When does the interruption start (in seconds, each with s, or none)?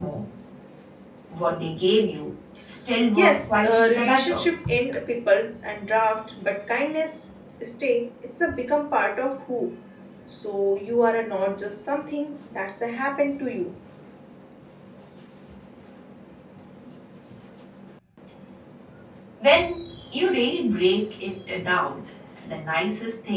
3.1 s